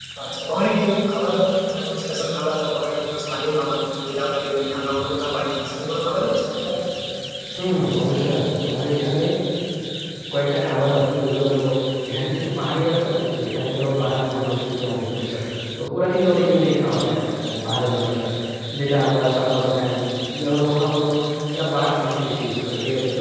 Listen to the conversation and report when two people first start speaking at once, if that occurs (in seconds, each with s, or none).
none